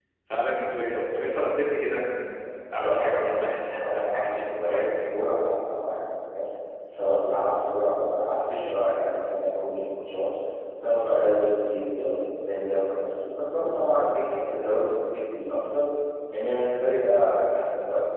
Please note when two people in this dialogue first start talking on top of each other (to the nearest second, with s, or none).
3 s